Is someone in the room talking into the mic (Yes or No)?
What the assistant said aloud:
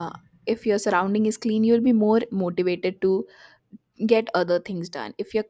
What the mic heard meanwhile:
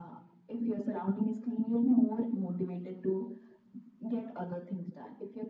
No